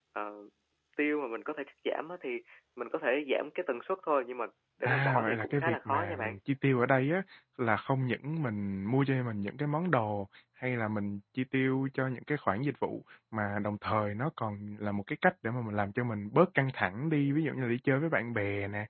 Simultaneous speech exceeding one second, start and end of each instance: 4.8-6.4

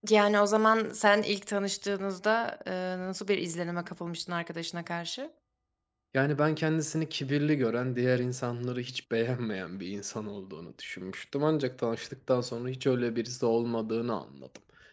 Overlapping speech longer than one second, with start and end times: none

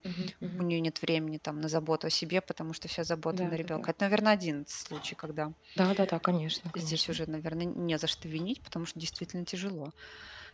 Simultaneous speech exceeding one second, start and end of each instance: none

